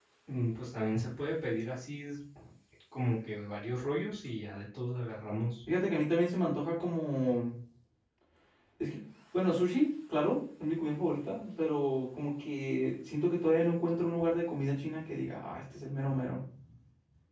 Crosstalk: none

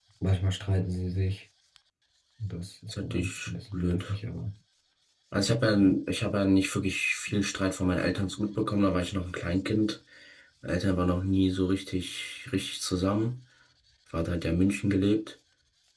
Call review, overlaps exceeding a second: present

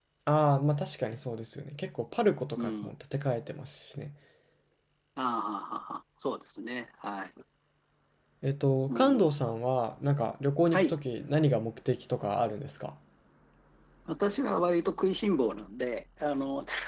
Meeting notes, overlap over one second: none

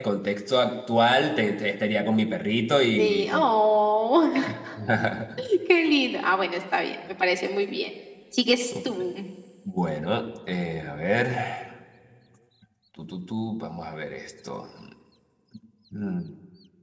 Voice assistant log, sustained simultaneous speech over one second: none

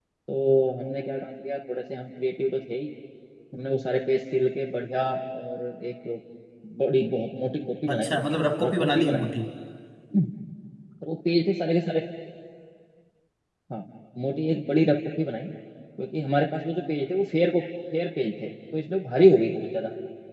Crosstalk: present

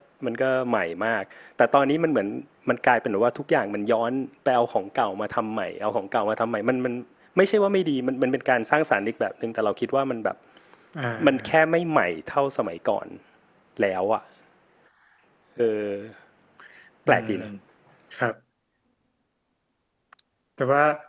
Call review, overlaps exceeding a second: none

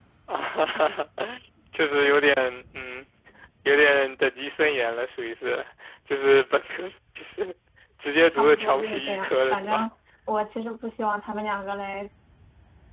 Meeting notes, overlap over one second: present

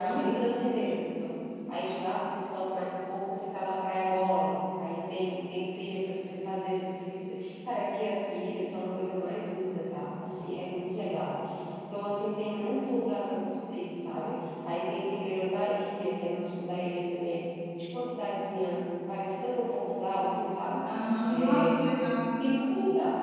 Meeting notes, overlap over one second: none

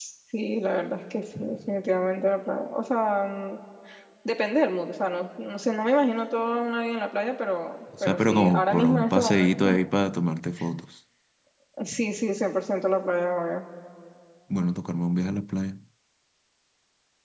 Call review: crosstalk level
present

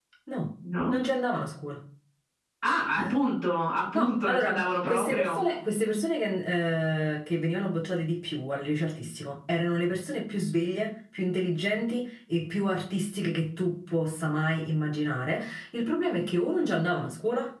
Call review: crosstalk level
present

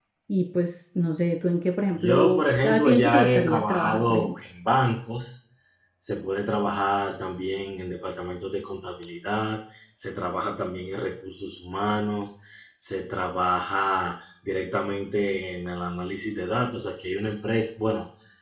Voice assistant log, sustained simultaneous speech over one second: present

